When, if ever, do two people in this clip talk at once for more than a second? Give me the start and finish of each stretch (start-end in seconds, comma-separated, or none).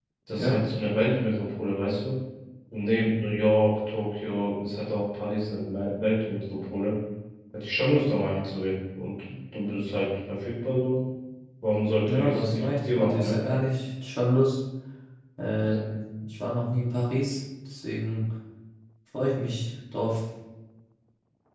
12.1-13.4